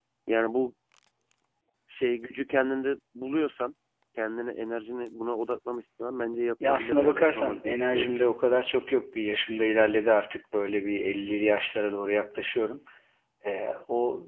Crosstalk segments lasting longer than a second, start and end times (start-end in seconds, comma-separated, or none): 6.6-8.1